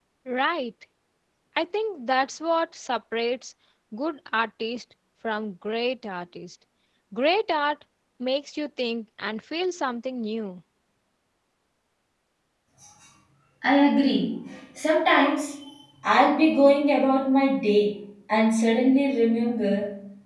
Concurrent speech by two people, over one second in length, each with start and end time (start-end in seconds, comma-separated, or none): none